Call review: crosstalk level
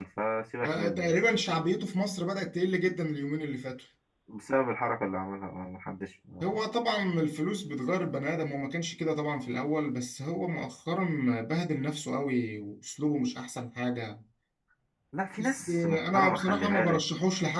present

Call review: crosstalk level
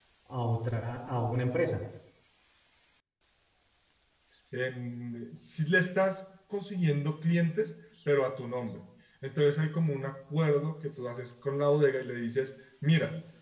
none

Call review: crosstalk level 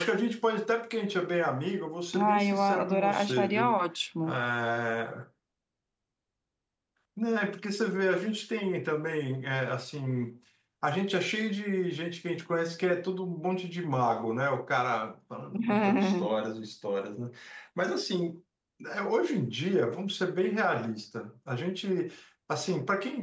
present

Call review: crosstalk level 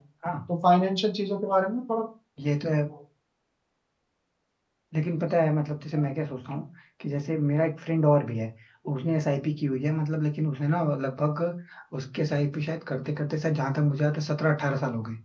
none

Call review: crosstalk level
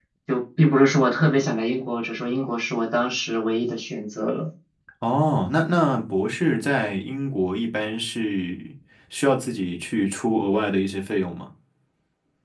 none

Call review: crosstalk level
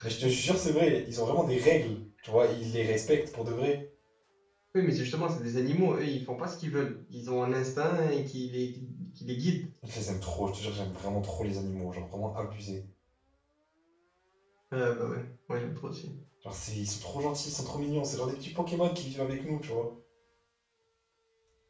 none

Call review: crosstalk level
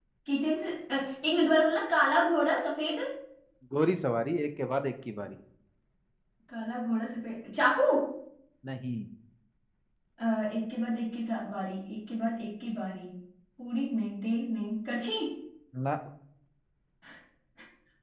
none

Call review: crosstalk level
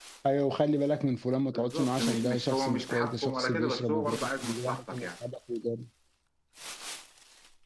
present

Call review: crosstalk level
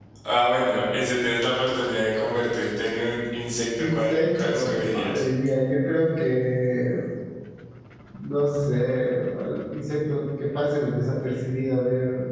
present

